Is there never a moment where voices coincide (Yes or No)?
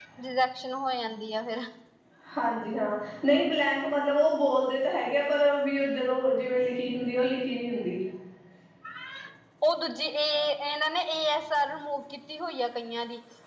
Yes